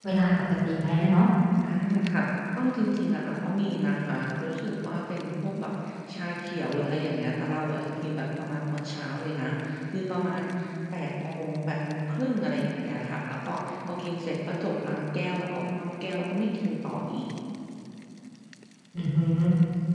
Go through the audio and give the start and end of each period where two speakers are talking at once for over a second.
none

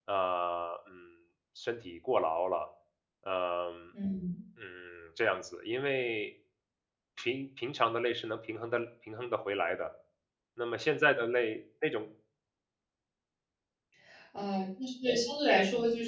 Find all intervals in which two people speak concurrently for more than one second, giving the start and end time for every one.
none

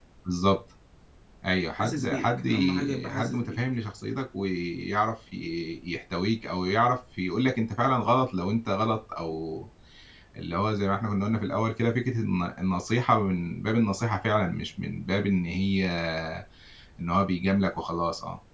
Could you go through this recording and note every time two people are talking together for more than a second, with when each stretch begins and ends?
1.7-3.6

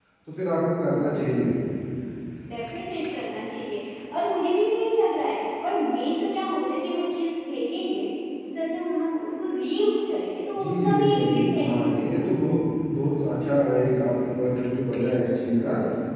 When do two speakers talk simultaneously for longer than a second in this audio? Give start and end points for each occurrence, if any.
10.6-12.2

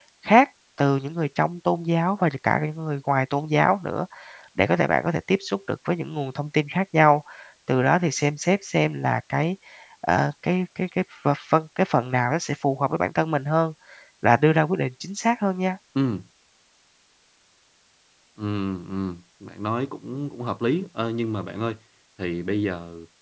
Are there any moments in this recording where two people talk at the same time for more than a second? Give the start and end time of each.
none

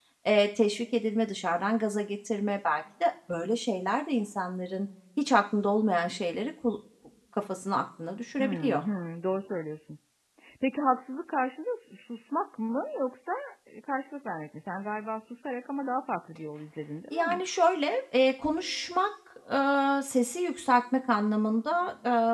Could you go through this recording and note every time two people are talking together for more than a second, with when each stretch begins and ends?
none

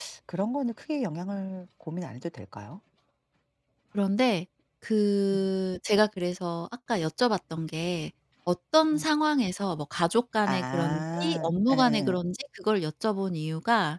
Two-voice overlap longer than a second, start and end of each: 10.5-12.2

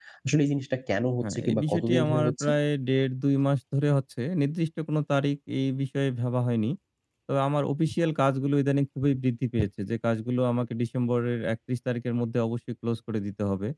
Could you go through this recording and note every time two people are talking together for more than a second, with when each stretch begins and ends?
1.2-2.5

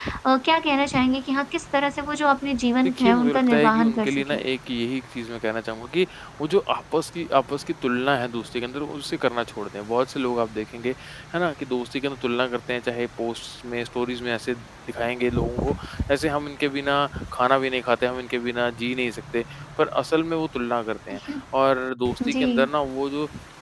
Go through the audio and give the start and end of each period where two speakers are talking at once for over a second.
2.9-4.4

